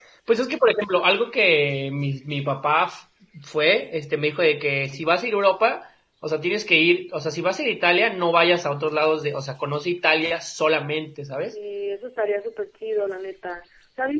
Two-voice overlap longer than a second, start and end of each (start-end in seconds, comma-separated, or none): none